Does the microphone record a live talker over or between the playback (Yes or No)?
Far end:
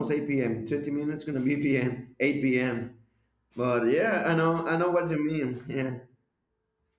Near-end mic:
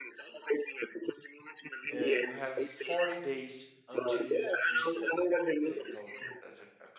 Yes